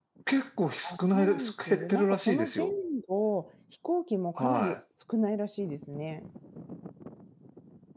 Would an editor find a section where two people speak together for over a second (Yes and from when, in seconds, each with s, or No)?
Yes, from 0.8 s